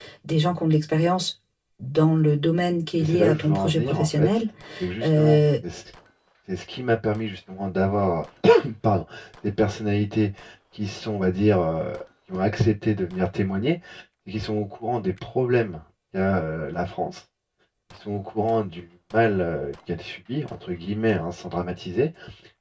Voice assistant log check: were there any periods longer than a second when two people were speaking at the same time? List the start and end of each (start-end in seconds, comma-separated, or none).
3.0-4.3